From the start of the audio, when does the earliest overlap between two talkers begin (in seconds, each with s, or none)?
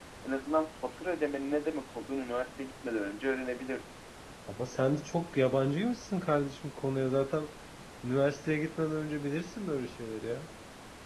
none